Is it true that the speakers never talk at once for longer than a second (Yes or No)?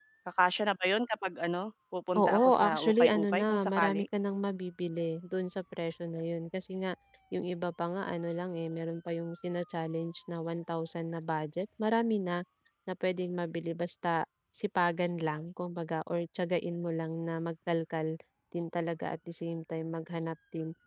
No